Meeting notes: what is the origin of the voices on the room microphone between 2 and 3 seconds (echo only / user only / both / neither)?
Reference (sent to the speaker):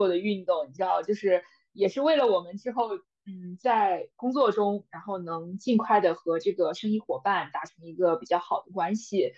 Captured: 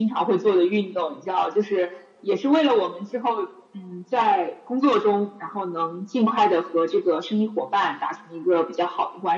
echo only